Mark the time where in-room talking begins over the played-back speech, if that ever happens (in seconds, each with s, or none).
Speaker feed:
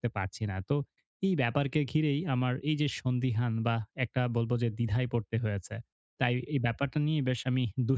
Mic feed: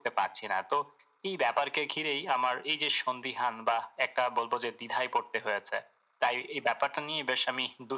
none